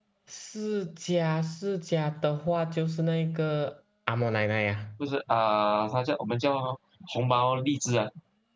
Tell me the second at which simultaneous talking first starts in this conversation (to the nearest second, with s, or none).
none